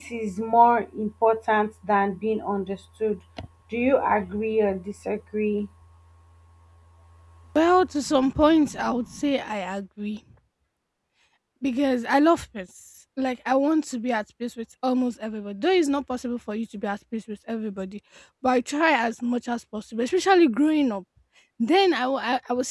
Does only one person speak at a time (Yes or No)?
Yes